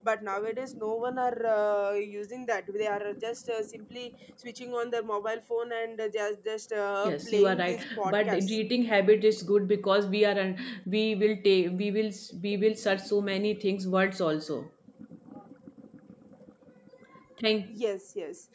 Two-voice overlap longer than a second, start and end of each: 7.0-8.6

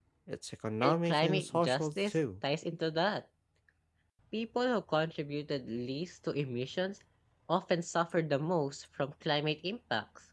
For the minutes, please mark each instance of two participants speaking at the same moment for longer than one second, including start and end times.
0.8-2.1

